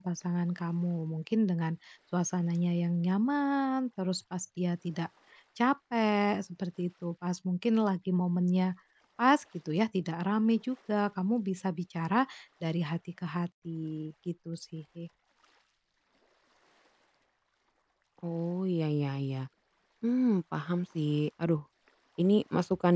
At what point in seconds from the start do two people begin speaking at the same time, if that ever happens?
none

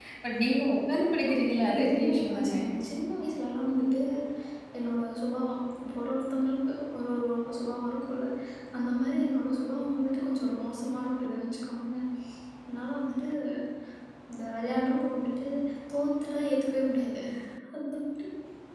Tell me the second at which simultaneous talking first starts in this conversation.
1.3 s

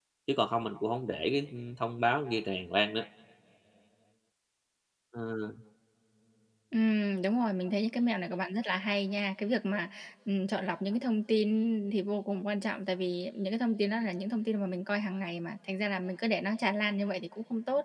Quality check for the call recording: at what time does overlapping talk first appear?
none

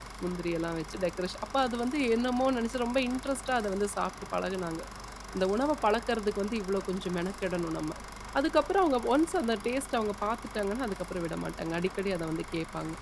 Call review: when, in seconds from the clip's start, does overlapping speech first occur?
none

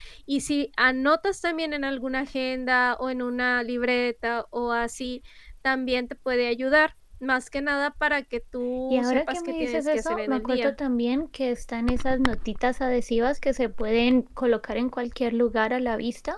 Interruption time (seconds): 8.9 s

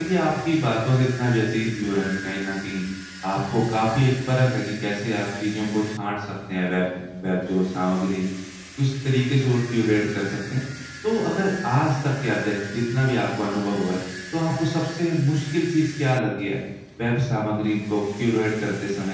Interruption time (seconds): none

